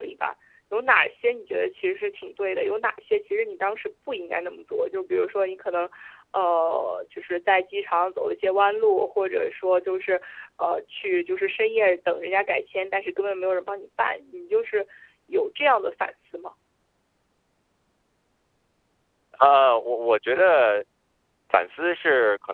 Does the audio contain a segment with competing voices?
No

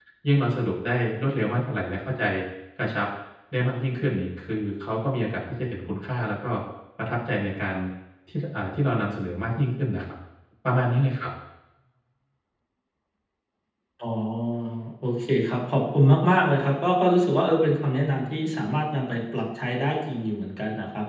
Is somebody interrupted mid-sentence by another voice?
No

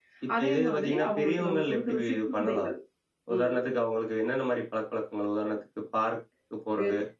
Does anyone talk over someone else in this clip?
Yes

